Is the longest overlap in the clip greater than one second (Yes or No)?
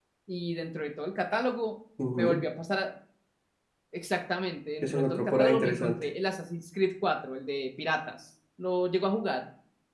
Yes